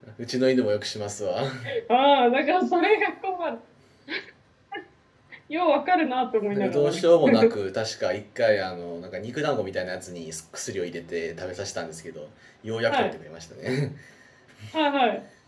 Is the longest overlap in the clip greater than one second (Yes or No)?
No